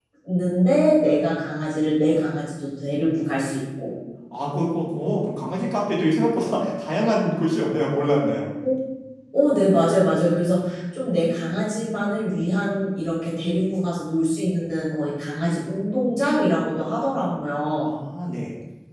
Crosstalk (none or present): none